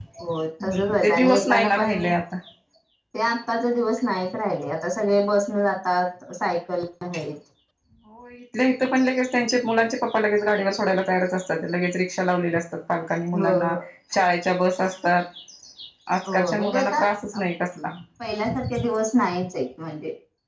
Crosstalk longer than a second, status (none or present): present